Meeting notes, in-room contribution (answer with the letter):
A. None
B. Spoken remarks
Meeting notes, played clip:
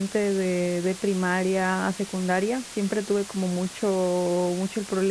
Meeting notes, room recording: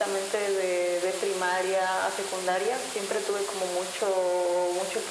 A